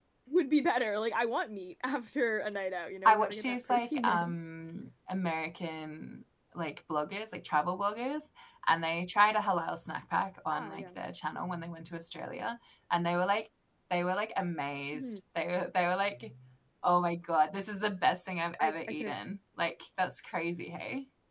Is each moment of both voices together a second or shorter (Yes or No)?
No